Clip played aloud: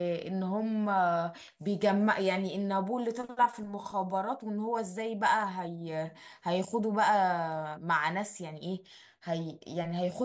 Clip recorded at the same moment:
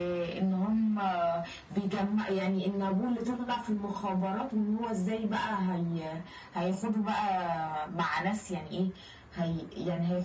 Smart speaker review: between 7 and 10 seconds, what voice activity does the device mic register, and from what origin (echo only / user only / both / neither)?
echo only